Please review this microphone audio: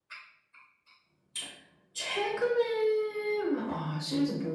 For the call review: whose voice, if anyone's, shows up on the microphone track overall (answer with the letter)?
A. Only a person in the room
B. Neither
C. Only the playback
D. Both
C